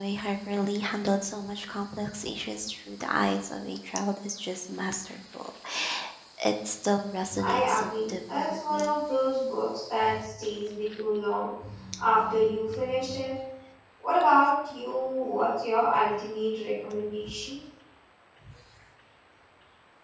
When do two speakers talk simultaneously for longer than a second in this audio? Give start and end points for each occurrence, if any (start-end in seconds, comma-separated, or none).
7.4-8.9